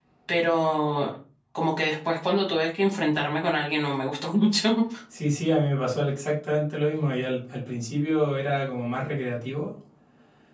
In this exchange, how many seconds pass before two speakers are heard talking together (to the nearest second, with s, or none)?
none